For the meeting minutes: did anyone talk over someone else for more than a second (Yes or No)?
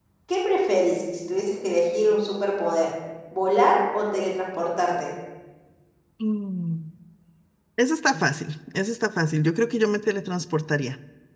No